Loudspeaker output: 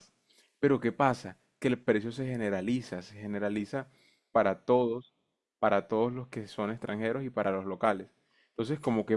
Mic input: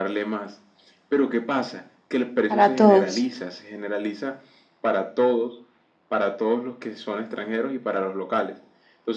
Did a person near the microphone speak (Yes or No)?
Yes